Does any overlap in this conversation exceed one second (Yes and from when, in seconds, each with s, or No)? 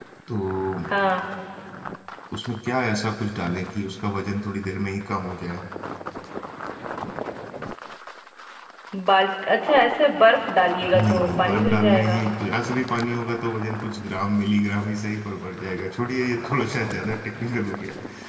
Yes, from 10.9 s